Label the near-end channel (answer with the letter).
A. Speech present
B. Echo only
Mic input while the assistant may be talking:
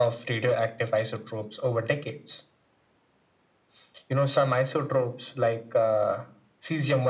B